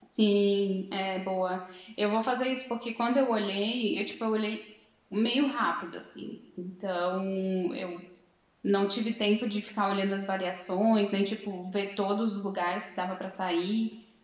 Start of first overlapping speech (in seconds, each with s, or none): none